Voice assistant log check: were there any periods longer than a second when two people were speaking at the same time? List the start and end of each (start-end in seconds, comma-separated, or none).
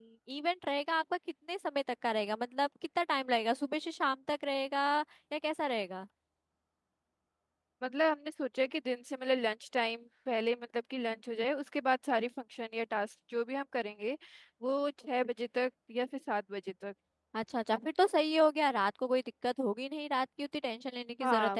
none